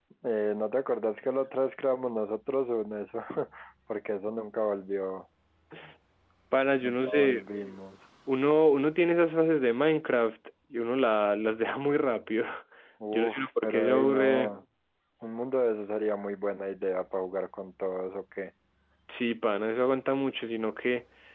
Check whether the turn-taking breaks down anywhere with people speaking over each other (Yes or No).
Yes